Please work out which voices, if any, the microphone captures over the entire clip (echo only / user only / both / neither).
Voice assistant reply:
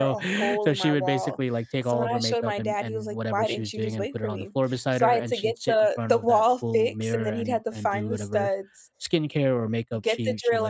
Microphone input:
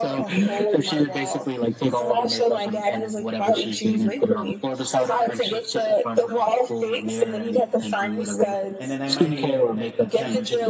both